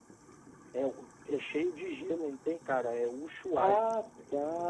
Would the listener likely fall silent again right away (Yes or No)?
No